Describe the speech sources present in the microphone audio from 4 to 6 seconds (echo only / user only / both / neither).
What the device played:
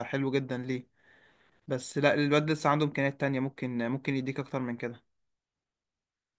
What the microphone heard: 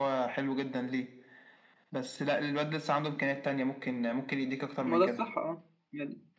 both